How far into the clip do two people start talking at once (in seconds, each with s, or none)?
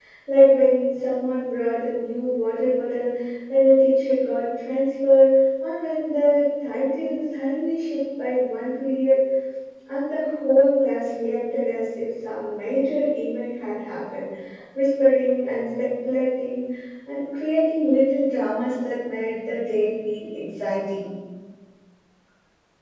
none